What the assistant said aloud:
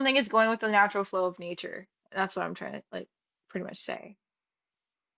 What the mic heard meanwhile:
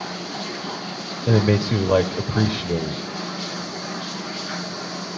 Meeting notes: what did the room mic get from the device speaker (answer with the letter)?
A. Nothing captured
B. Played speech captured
A